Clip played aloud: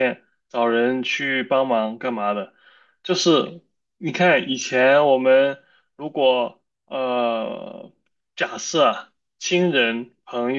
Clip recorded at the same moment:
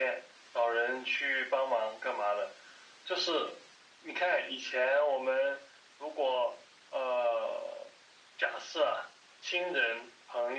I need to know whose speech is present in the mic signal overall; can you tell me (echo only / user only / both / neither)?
echo only